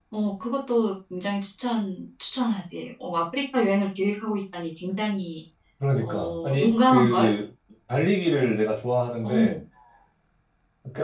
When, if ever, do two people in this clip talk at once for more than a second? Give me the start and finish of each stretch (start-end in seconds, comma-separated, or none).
6.0-7.3